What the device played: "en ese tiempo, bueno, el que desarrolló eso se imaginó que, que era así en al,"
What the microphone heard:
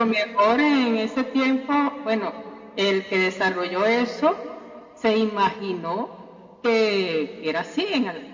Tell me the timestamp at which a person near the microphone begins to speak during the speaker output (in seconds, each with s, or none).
none